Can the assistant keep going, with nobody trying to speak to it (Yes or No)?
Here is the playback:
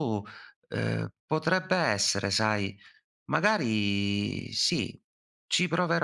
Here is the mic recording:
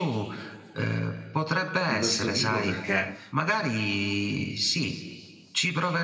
No